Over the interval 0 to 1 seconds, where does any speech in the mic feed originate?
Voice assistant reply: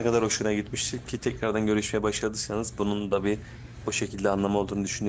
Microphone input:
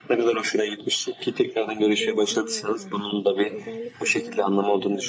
echo only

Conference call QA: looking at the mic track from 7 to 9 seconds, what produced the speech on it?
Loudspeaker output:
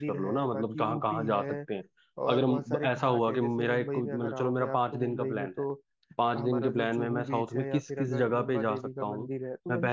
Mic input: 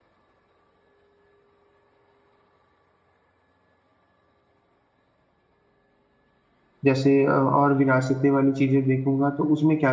user only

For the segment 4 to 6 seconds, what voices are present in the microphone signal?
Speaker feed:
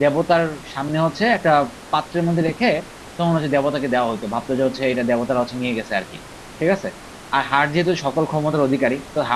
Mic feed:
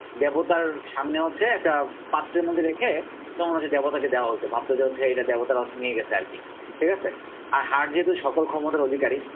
echo only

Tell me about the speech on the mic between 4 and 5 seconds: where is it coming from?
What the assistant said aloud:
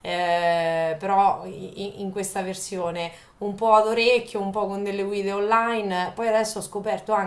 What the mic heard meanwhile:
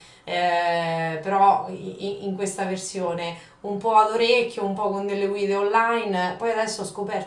echo only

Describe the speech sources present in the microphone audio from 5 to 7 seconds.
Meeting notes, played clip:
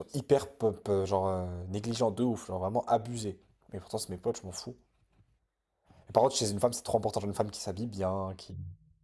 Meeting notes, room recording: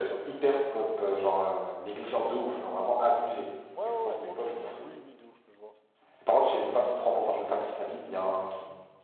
both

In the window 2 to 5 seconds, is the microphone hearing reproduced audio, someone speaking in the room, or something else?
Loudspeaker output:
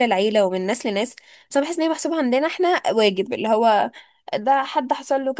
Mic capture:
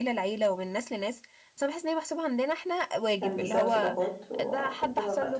both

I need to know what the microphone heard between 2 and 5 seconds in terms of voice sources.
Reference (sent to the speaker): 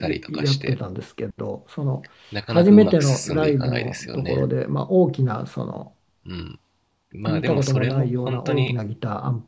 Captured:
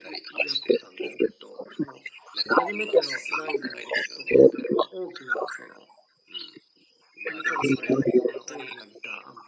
echo only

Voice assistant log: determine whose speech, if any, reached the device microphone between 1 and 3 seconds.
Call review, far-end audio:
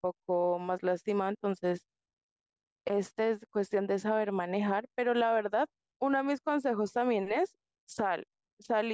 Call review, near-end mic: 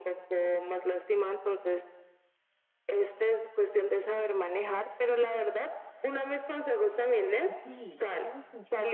echo only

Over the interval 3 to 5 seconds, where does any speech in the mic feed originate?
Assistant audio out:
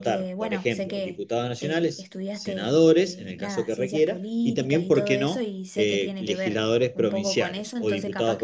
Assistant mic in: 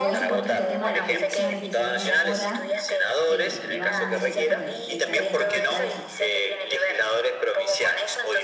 both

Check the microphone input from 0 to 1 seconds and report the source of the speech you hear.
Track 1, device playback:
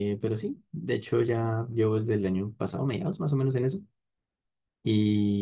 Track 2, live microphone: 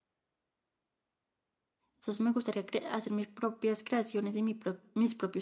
neither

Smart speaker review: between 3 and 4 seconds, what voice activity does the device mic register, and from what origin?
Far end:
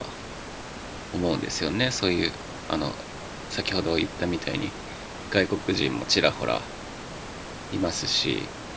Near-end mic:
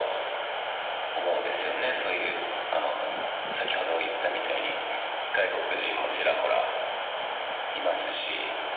echo only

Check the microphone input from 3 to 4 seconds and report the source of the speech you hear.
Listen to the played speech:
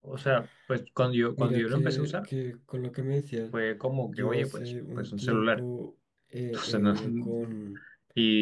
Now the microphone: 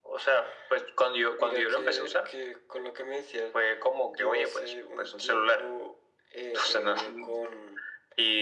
echo only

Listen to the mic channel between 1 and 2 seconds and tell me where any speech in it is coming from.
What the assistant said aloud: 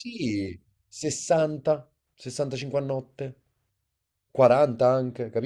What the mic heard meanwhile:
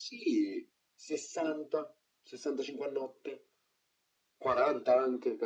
echo only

